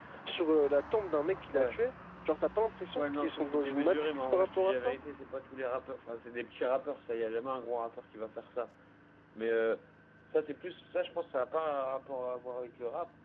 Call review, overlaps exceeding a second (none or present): present